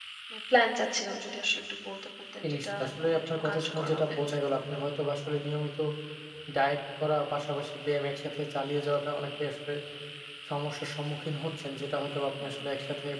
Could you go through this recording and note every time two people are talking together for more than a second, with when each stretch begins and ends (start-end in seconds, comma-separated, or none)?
2.4-4.2